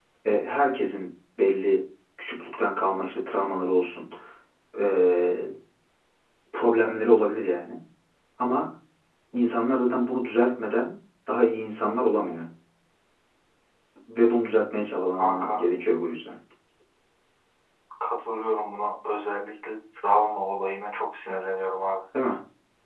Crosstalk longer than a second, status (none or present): none